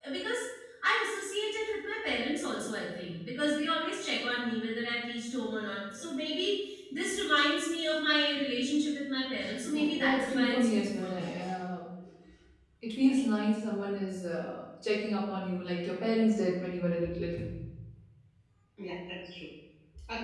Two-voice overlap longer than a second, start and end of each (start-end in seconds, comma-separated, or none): 9.7-11.2